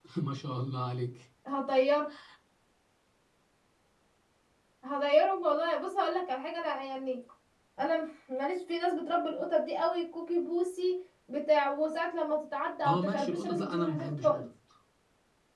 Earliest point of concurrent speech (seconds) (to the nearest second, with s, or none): 13 s